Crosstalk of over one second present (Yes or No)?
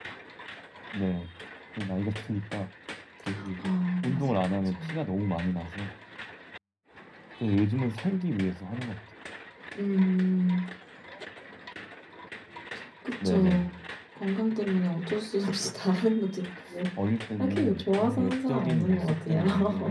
Yes